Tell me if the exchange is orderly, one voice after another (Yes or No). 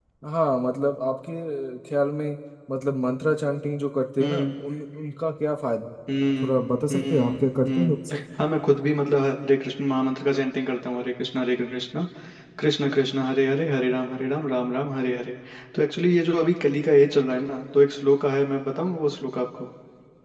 No